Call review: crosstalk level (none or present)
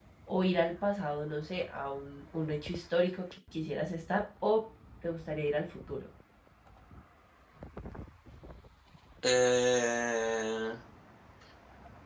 none